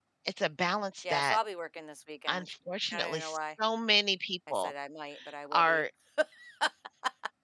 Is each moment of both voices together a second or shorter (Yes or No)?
Yes